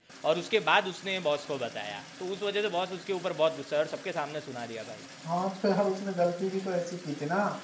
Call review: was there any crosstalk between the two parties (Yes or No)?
No